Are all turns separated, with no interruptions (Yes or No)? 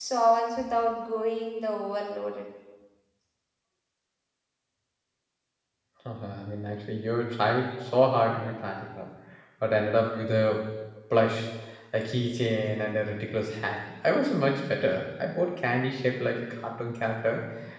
Yes